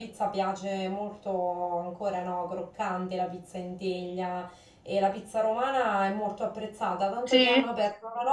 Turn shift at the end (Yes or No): No